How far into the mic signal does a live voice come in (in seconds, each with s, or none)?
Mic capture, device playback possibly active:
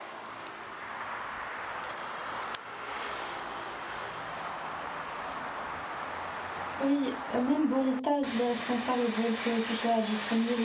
6.8 s